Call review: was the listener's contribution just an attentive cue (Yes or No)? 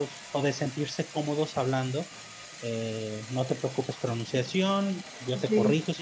Yes